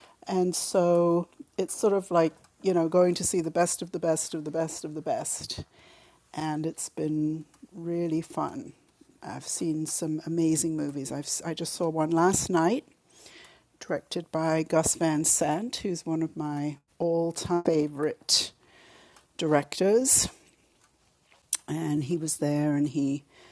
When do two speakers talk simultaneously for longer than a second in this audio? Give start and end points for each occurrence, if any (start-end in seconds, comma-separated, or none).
none